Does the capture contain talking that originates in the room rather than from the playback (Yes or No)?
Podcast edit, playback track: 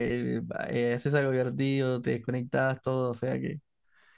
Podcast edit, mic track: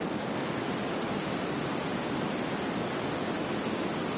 No